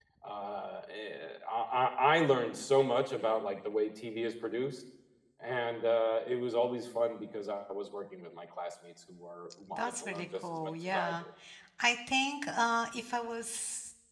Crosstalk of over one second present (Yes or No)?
Yes